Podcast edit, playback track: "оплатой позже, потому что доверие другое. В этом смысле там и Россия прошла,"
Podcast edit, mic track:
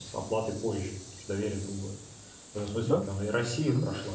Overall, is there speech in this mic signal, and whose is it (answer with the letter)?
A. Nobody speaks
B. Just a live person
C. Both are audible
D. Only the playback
C